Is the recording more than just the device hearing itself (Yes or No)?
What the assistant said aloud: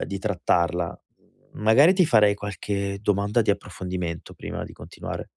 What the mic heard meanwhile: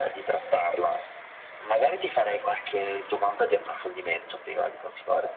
No